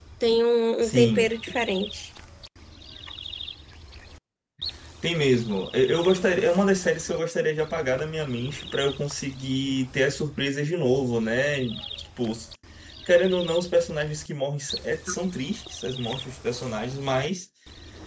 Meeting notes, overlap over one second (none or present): none